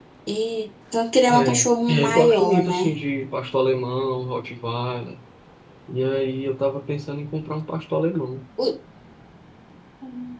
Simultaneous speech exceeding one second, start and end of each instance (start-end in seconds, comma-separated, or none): 1.3-2.8